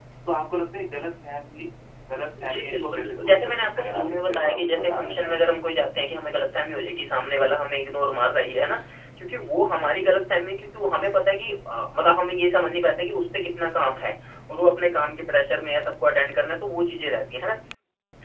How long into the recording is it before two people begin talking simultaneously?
2.5 s

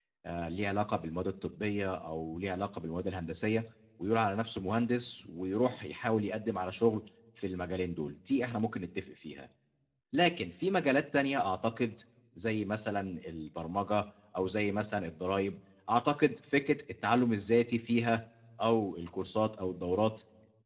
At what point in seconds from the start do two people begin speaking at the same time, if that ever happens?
none

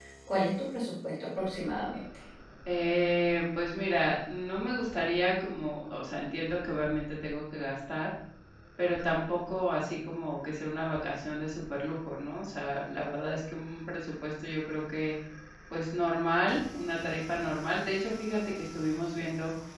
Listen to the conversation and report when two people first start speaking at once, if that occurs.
none

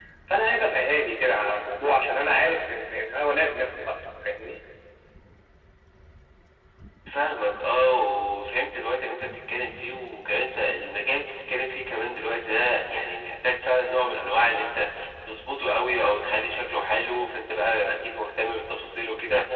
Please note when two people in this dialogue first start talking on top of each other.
none

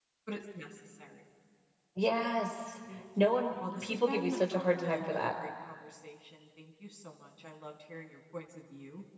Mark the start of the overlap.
3.2 s

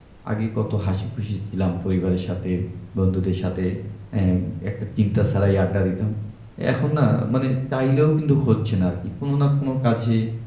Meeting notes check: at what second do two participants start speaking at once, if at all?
none

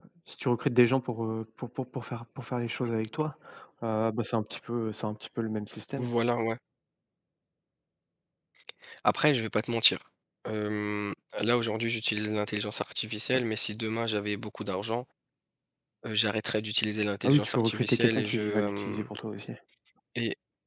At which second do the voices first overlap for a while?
17.2 s

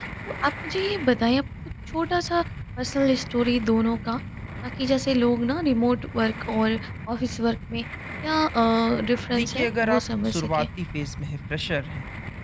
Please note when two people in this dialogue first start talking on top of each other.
9.3 s

